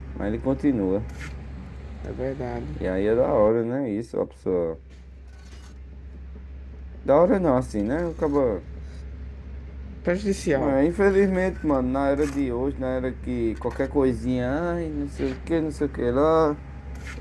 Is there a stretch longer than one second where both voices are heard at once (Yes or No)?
No